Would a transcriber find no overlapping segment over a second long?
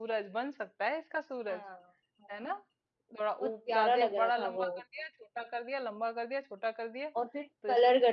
No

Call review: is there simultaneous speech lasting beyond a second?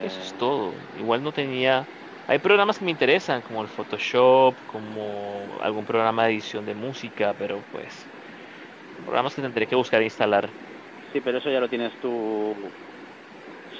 No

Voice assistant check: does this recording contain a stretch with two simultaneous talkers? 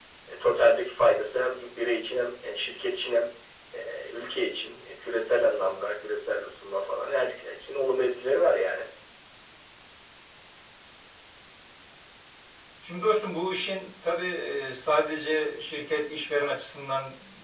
No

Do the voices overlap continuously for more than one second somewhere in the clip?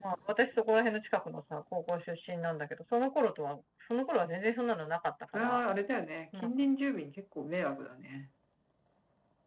No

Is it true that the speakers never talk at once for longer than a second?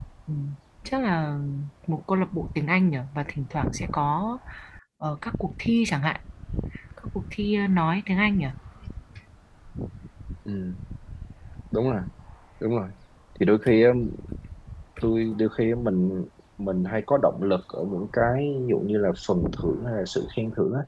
Yes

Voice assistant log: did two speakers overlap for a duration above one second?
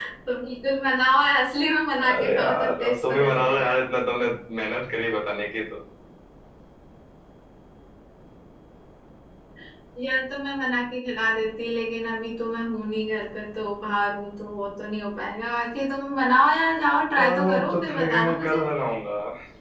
Yes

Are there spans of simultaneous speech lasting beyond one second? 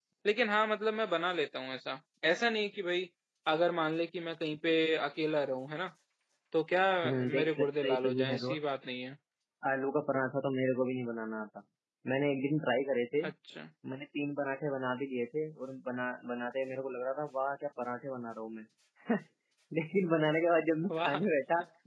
Yes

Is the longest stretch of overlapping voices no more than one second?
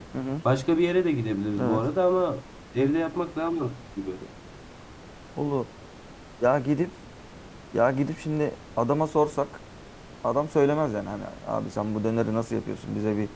Yes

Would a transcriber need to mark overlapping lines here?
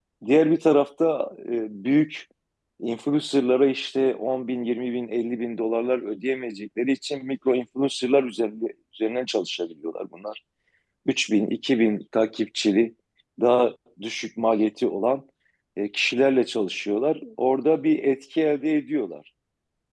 No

